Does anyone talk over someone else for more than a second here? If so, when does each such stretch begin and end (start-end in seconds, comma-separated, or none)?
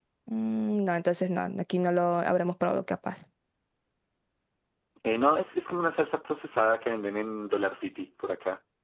none